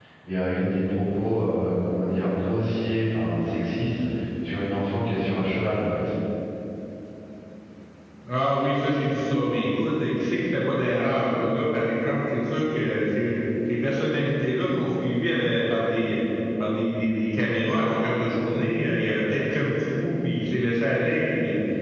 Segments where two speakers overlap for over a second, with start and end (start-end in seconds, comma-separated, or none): none